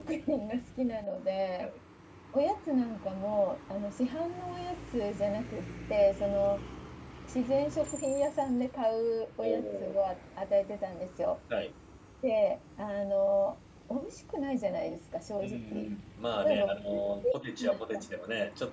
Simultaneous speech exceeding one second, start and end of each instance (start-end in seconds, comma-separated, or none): 16.4-18.1